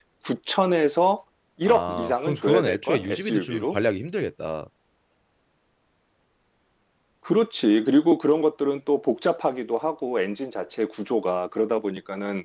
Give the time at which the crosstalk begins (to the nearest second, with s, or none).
2 s